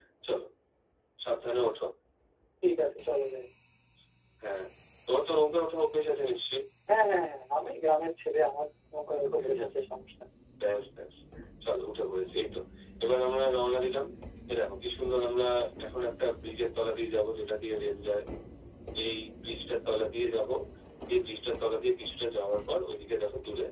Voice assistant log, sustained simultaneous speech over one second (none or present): none